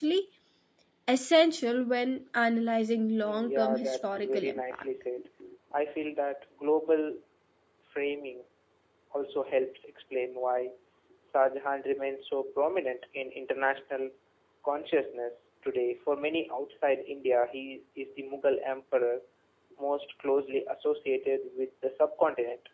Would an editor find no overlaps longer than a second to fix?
No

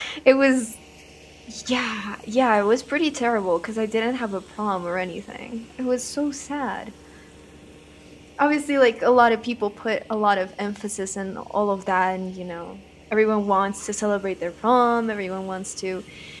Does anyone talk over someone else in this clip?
No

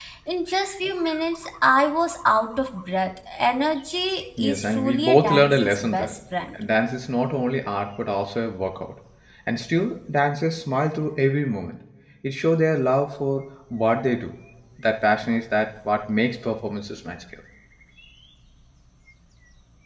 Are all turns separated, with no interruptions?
No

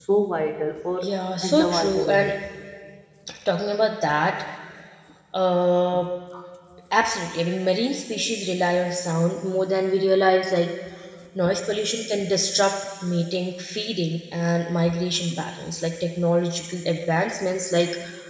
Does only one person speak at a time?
No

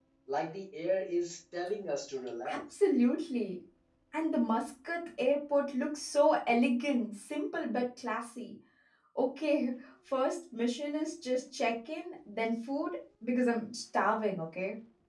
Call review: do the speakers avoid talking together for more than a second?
Yes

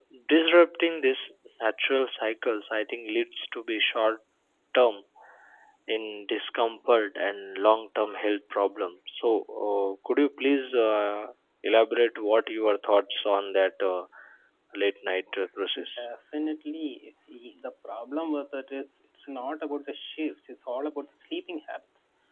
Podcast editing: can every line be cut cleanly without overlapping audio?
Yes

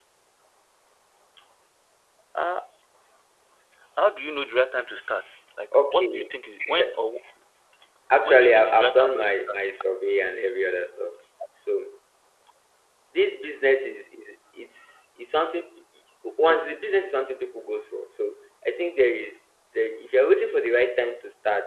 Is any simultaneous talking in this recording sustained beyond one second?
Yes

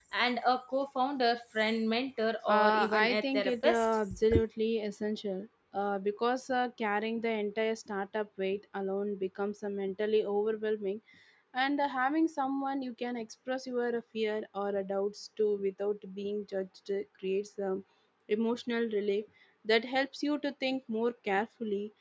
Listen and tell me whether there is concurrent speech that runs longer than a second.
Yes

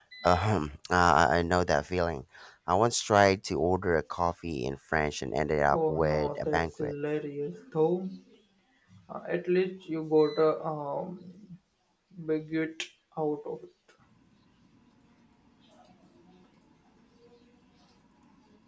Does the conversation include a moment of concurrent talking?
Yes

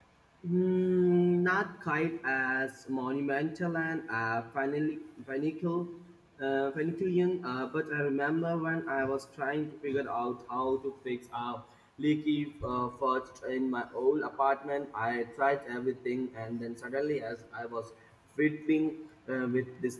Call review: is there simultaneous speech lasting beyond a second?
No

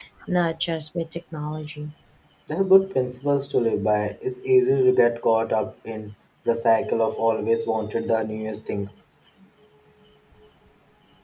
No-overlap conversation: Yes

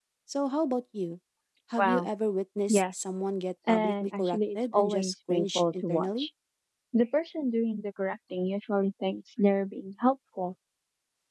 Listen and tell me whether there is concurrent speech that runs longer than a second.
Yes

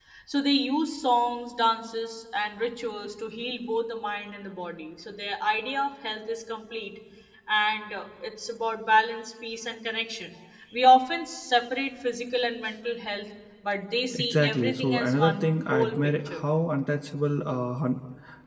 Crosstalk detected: Yes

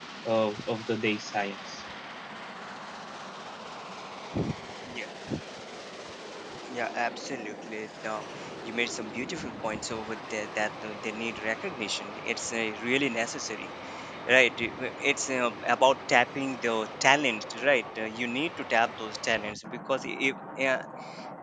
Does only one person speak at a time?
Yes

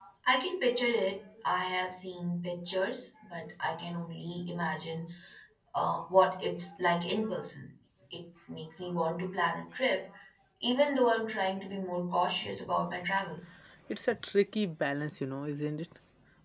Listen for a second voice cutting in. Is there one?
No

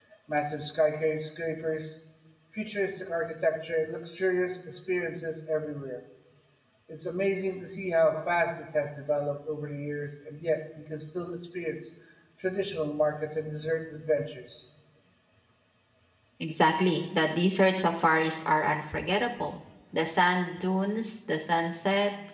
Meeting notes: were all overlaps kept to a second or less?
Yes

